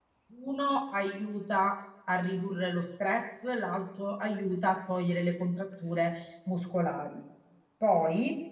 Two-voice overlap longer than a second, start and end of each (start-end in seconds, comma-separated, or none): none